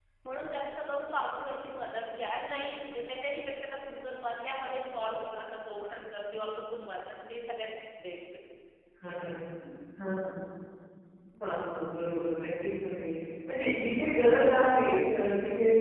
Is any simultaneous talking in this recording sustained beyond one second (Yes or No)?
No